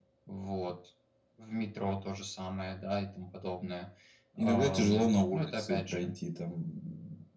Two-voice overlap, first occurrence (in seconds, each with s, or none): 4.4 s